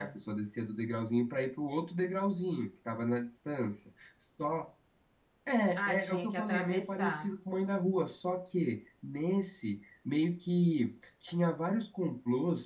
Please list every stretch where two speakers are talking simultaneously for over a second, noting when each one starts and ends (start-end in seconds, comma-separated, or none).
5.8-7.3